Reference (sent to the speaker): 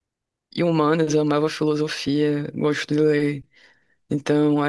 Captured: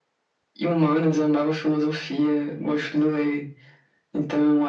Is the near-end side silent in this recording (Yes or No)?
Yes